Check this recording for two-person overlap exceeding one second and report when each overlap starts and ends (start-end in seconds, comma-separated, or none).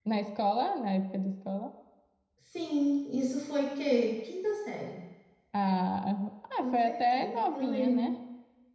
6.6-8.1